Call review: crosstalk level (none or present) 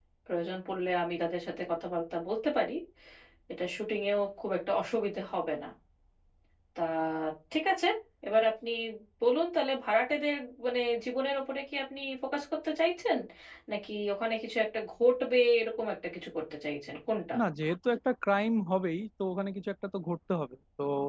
none